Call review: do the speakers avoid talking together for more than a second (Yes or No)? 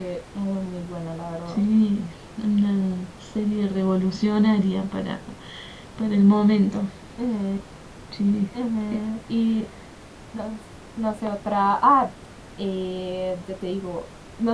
Yes